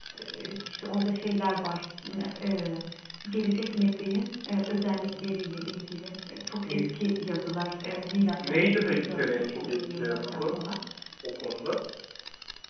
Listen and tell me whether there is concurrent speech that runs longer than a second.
Yes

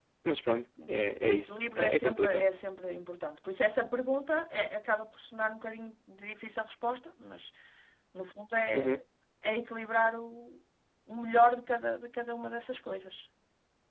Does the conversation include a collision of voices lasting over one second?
Yes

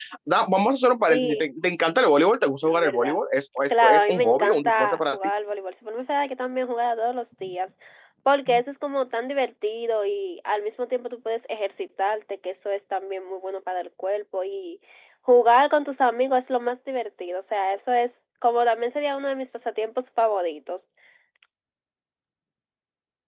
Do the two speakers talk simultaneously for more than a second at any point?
Yes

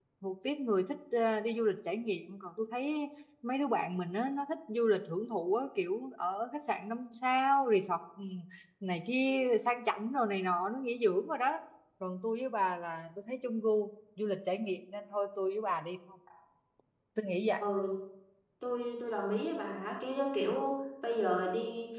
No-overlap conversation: Yes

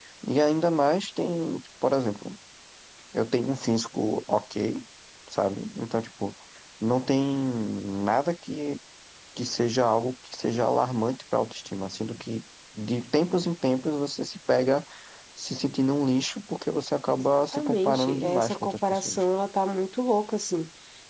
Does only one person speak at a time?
No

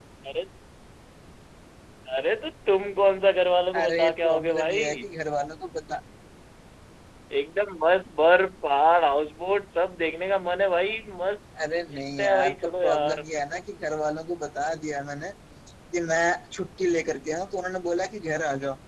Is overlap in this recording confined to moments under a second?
No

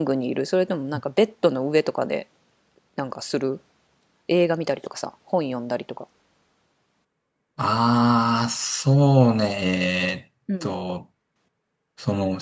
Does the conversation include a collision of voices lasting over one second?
No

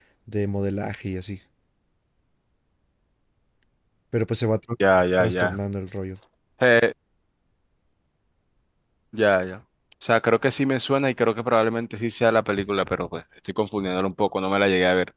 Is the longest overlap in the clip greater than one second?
No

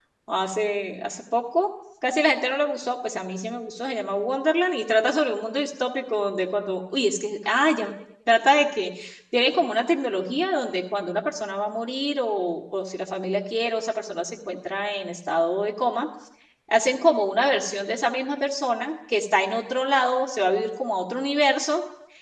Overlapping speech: No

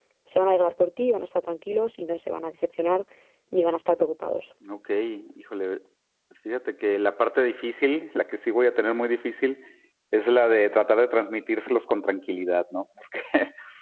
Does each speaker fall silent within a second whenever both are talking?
Yes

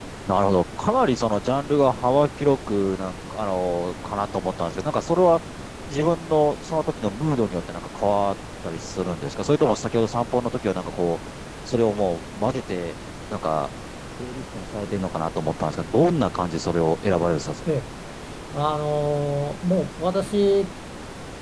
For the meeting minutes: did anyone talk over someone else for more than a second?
No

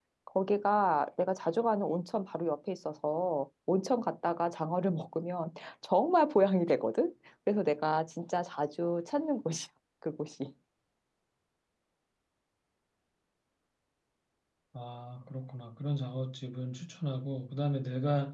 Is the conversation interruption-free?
Yes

